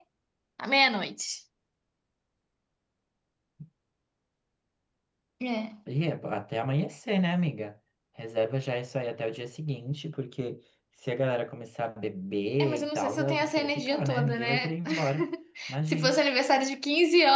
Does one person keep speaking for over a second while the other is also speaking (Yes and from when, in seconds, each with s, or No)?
Yes, from 12.6 s